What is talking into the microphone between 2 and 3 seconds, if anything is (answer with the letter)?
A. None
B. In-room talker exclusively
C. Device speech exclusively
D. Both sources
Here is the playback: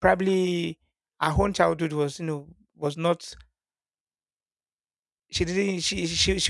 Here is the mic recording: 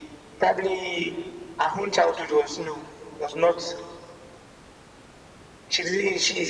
C